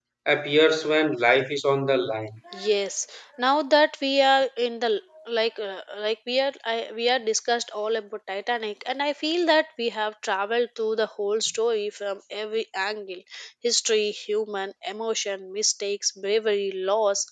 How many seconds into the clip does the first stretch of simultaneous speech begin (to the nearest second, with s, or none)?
none